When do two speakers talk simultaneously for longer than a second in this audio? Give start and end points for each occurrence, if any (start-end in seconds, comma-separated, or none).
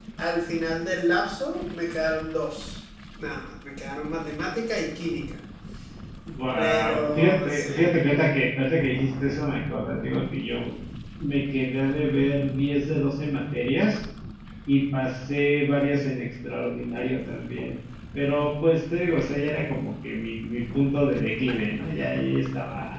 6.6-7.9